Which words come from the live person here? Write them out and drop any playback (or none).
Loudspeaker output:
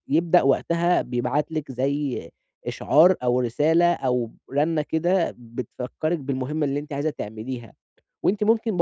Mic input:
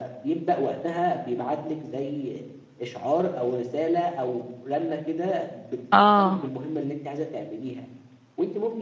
آه،